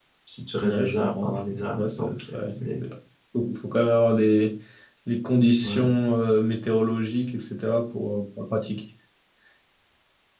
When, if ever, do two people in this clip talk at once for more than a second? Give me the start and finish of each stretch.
0.6-2.4

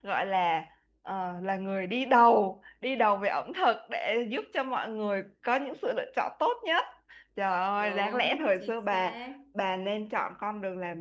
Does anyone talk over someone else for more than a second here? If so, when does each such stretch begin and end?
7.8-9.2

